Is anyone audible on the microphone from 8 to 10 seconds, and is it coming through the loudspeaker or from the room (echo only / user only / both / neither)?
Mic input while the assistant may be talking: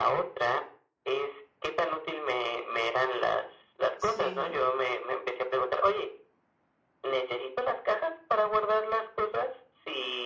echo only